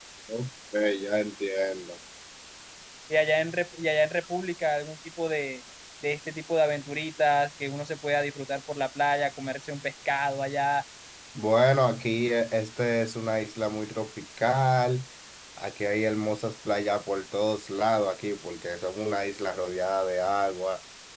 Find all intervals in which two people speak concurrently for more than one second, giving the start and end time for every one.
none

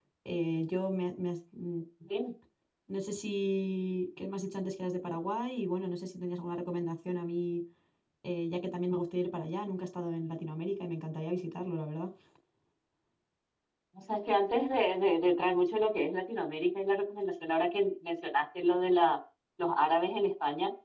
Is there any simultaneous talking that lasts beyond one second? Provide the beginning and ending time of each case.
none

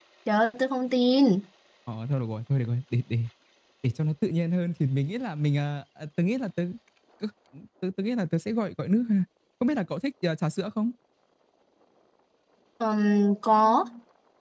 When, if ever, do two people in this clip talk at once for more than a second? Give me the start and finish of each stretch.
none

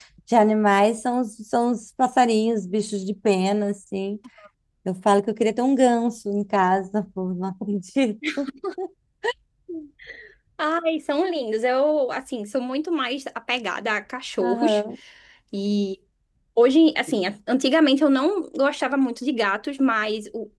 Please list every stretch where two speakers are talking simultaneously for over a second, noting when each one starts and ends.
none

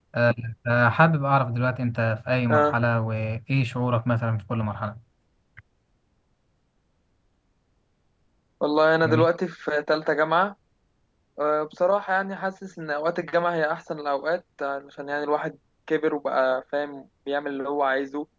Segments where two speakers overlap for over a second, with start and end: none

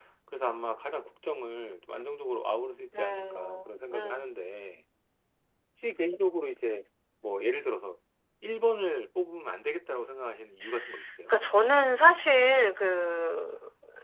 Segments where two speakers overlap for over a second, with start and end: 3.0-4.2

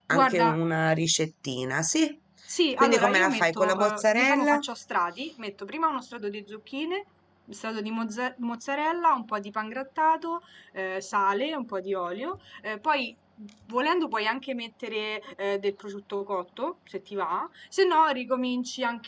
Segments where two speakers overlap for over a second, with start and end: 2.8-4.6

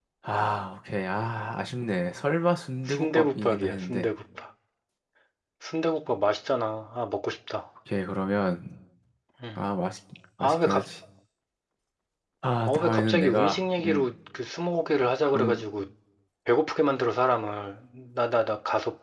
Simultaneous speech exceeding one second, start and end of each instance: 2.9-4.1, 12.6-14.1

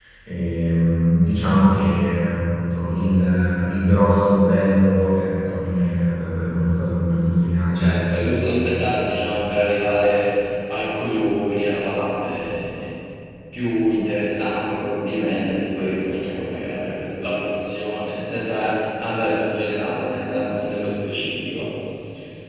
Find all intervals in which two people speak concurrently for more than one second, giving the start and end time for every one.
none

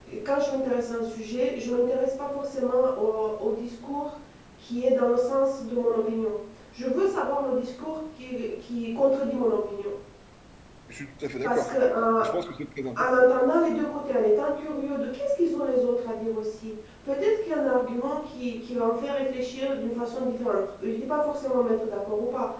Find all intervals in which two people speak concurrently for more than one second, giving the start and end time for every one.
none

